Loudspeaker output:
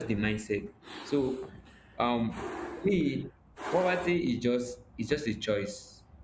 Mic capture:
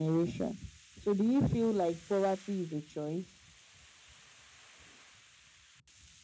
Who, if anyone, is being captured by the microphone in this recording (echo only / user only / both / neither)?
user only